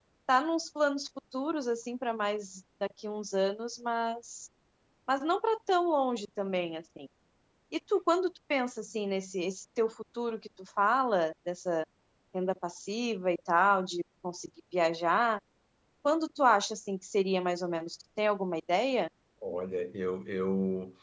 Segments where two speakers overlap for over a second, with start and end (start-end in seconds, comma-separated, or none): none